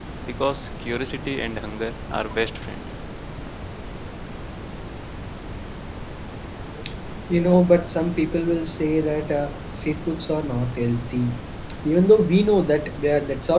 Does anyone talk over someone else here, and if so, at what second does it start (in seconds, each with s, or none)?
none